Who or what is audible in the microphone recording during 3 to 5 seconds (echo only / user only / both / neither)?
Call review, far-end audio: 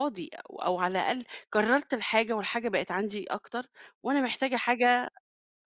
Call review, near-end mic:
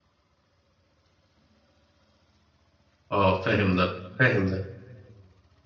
user only